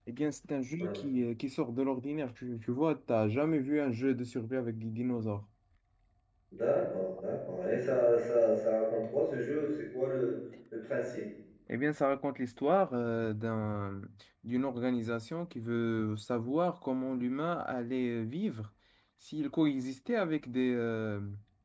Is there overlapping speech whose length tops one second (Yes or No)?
No